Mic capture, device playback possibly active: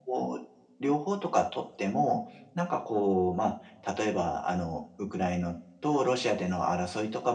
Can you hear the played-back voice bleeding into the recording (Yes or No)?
Yes